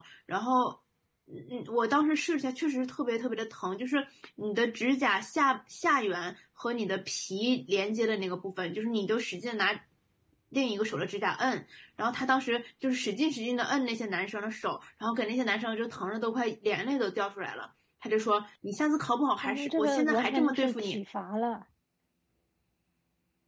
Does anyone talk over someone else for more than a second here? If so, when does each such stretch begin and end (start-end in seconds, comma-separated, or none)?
19.4-21.0